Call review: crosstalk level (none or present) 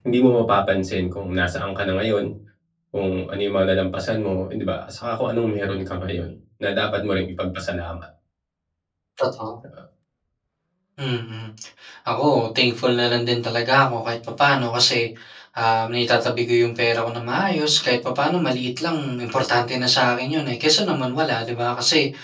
none